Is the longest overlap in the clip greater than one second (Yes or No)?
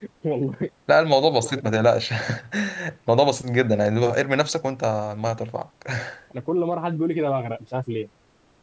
No